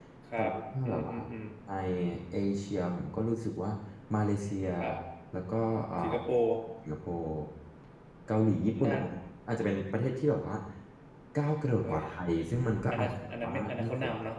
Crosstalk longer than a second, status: present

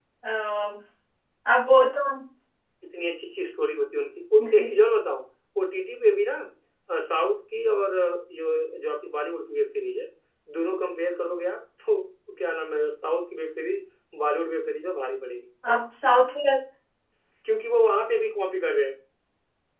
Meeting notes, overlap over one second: none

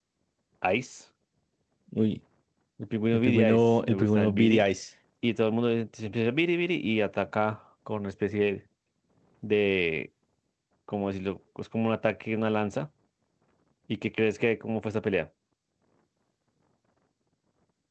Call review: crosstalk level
present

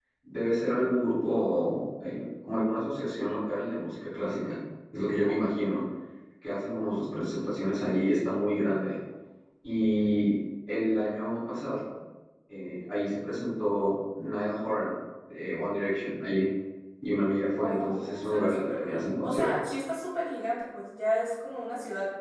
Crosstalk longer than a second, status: present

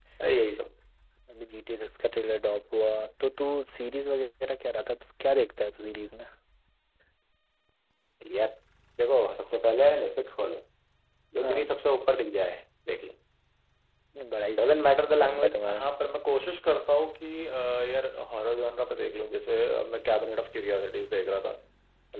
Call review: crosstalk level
present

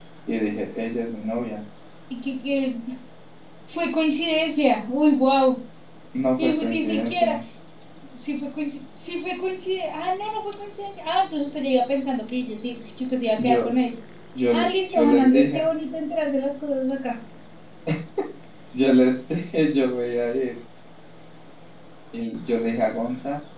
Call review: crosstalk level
present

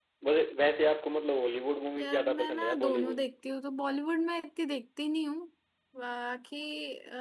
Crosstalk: present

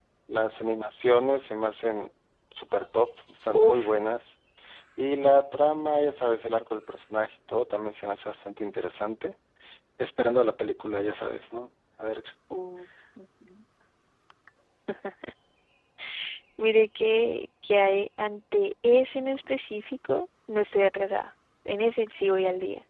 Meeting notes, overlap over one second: none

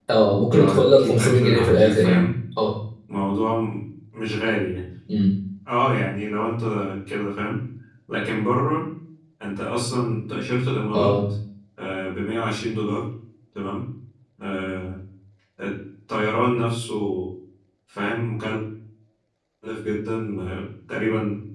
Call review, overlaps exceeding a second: present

